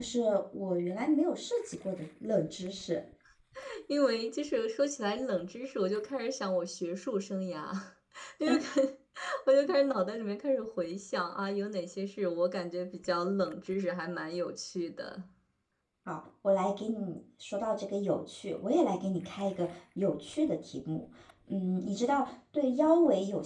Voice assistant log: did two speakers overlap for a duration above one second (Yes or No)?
No